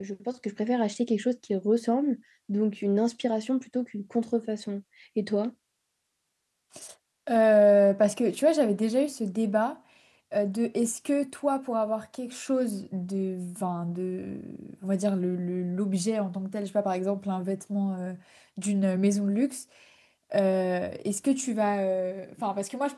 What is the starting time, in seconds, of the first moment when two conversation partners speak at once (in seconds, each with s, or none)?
none